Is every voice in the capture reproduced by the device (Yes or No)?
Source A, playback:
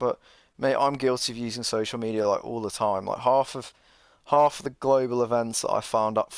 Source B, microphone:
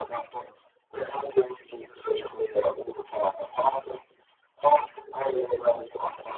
Yes